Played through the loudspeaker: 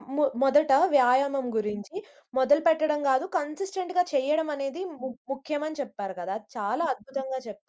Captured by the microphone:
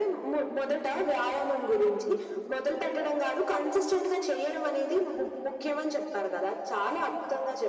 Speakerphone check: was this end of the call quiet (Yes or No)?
Yes